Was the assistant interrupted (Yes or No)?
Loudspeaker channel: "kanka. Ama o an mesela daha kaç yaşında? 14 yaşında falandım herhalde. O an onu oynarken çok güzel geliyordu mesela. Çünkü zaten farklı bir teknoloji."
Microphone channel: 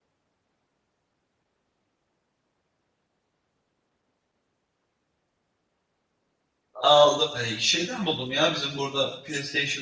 Yes